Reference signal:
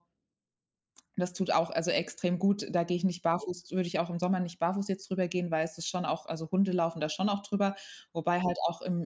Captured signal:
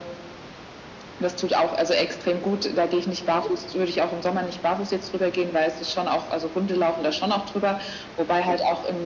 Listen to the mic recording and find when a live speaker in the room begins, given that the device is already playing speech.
none

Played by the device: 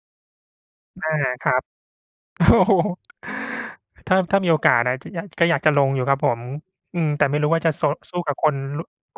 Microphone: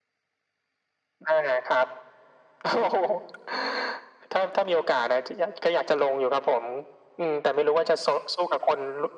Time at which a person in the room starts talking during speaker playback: none

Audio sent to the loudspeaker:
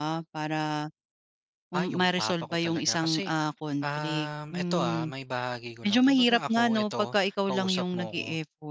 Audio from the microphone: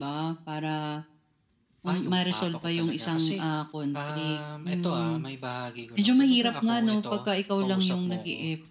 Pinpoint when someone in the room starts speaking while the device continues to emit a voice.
none

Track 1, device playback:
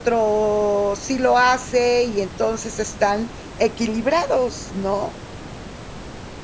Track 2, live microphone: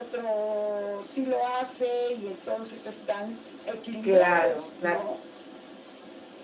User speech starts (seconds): 4.0 s

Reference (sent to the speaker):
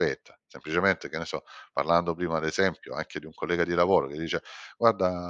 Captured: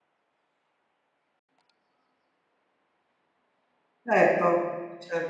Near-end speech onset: 4.1 s

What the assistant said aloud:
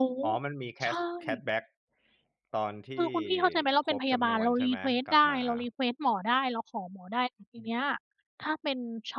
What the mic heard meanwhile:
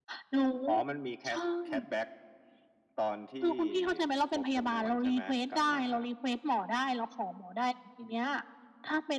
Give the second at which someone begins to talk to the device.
none

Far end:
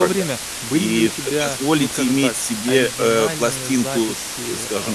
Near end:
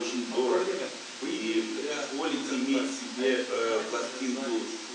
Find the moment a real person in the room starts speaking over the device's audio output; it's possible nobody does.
none

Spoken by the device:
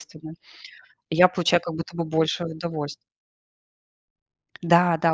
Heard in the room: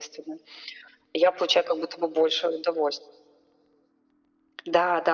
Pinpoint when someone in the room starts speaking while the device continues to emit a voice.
none

